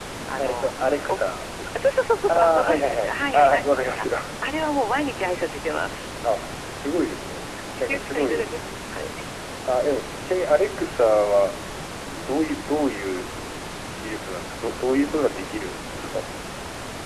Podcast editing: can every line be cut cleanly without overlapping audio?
No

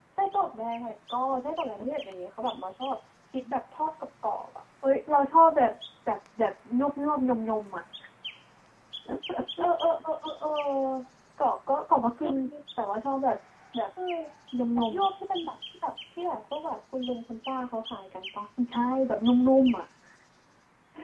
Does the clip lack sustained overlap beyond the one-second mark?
Yes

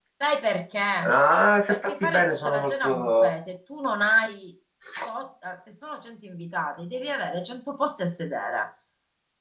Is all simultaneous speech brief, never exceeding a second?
No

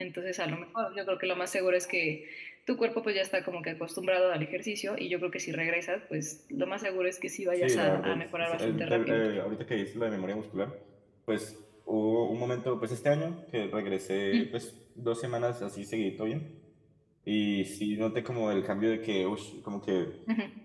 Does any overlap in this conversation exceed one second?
Yes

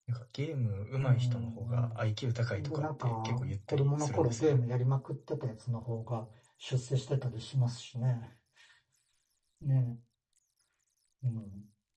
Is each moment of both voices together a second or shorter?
No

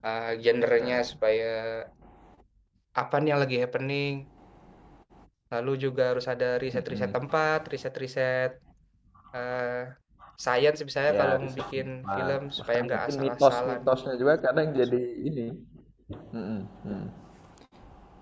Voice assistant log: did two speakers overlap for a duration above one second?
Yes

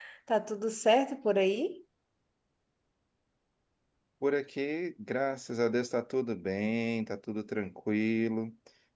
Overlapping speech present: No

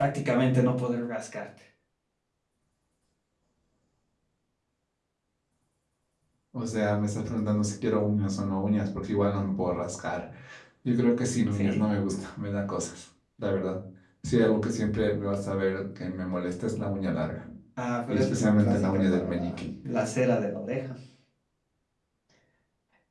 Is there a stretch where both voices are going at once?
Yes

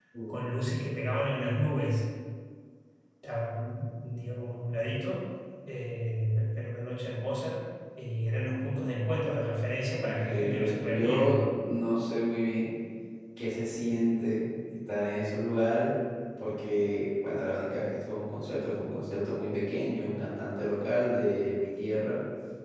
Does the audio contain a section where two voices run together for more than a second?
Yes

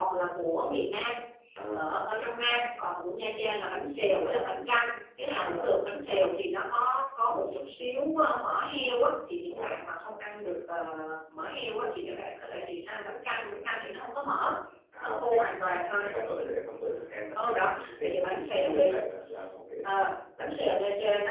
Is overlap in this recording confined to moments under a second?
No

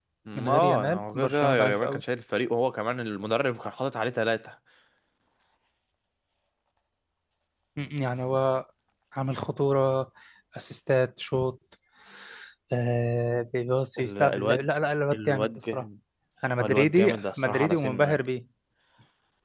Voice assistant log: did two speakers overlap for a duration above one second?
Yes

